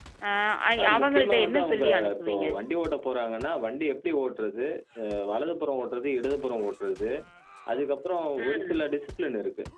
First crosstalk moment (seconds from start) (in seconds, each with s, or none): 0.8 s